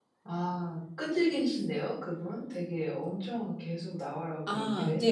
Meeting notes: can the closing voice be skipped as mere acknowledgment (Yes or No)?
No